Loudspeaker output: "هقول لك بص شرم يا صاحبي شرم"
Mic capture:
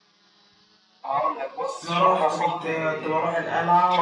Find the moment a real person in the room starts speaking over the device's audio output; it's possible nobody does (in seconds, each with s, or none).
1.8 s